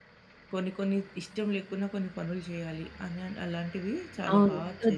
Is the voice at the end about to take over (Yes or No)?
Yes